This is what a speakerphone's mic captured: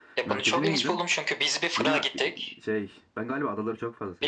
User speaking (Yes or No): Yes